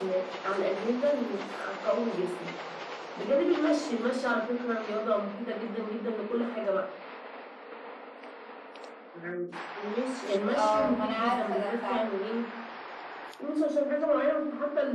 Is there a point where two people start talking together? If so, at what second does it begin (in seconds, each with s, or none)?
10.5 s